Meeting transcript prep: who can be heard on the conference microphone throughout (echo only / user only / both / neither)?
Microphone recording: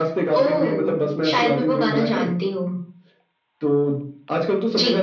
echo only